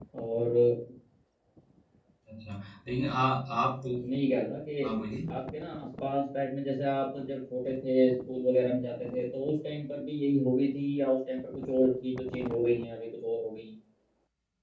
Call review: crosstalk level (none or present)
none